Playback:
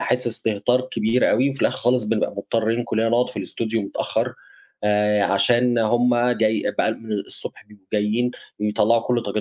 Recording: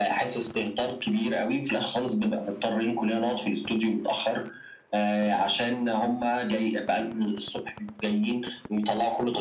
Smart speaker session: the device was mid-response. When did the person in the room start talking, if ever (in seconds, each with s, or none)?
none